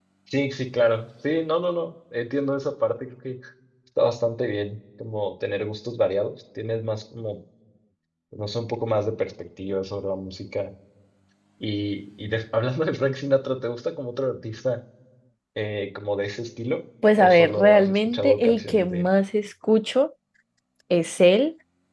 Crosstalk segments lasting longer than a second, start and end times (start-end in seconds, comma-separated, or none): 17.2-19.0